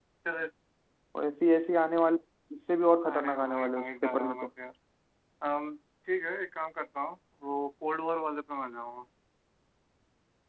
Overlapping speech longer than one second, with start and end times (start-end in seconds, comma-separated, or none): 3.1-4.5